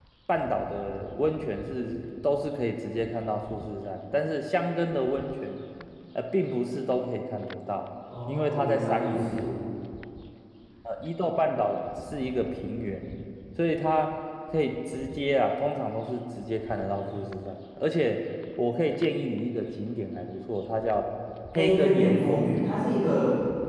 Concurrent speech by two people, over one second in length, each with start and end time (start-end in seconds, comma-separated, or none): 8.3-9.5, 21.6-22.8